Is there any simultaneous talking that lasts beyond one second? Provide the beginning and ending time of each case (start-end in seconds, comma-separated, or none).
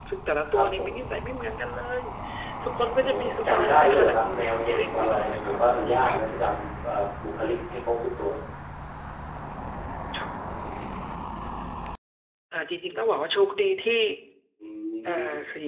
3.0-6.2